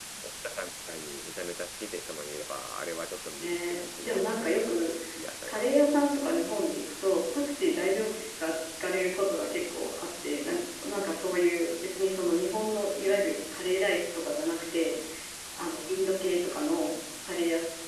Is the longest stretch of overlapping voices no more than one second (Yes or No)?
No